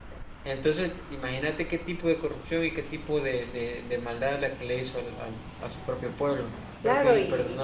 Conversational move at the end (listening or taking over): taking over